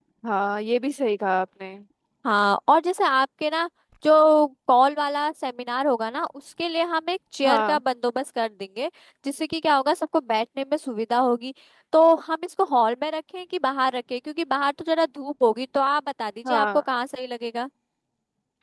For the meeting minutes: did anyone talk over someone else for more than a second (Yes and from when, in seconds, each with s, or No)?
No